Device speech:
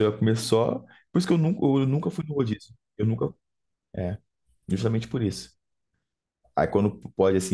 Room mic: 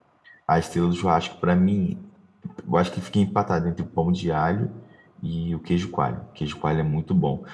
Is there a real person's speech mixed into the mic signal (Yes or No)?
Yes